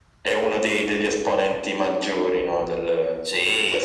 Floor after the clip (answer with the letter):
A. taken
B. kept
A